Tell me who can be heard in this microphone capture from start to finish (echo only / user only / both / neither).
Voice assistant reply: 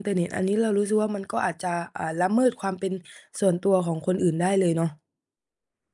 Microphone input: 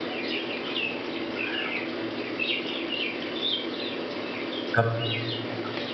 user only